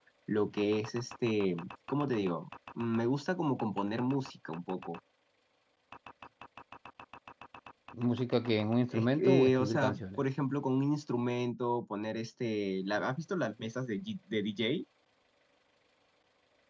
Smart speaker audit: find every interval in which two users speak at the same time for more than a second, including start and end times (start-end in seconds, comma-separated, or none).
8.9-10.2